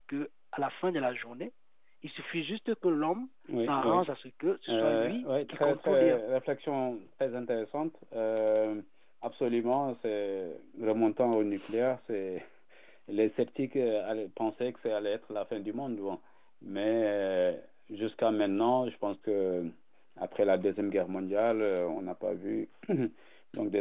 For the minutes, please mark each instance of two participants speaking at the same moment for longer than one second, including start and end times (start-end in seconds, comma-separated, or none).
4.7-6.2